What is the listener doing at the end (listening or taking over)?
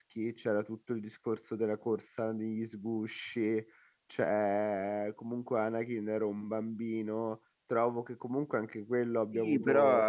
taking over